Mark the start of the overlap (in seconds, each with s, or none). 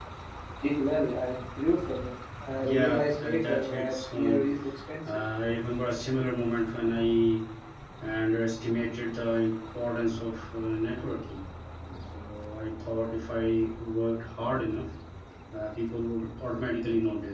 2.6 s